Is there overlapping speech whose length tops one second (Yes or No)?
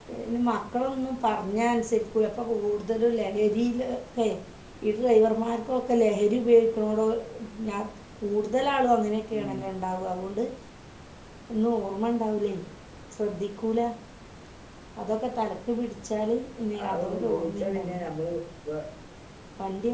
Yes